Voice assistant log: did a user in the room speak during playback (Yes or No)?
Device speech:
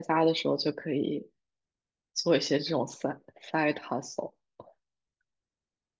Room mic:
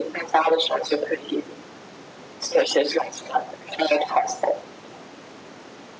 No